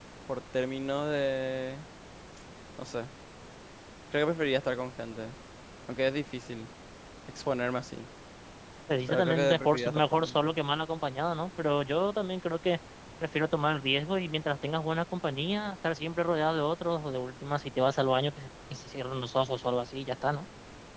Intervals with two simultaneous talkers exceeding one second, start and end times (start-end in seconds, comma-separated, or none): 9.1-10.6